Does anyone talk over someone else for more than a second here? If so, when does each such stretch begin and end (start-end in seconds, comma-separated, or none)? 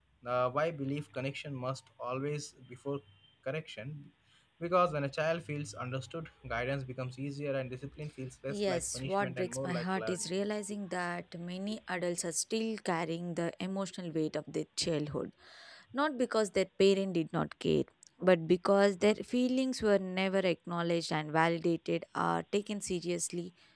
8.5-10.3